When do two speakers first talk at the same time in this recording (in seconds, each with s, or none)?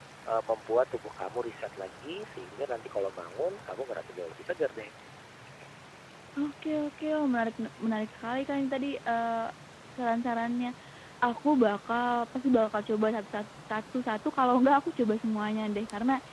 none